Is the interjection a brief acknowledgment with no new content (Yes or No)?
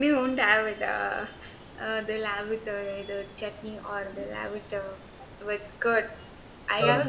Yes